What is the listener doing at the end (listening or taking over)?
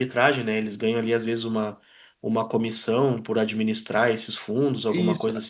taking over